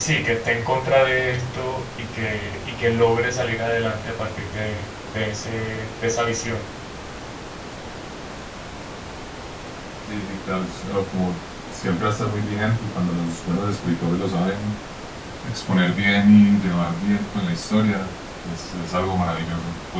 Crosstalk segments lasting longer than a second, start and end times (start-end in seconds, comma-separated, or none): none